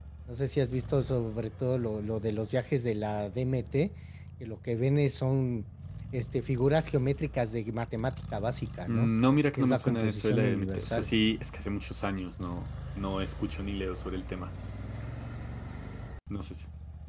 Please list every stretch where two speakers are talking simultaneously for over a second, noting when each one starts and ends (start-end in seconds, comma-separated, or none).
9.6-11.1